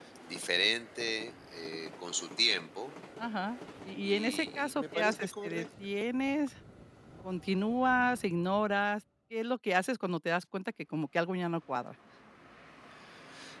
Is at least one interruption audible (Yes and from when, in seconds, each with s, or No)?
Yes, from 4.0 s